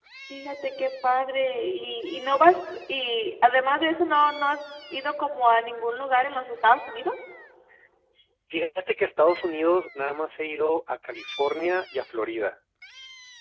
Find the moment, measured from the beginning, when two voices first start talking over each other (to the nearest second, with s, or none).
none